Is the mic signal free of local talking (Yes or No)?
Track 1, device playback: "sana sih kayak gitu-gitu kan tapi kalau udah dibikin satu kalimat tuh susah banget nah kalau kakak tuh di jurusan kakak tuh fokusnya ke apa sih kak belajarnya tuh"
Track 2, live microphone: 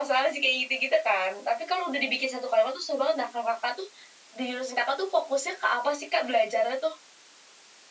Yes